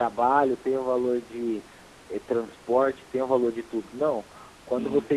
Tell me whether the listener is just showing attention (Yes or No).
Yes